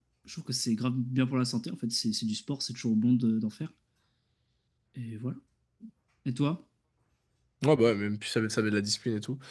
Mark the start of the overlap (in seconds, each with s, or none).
none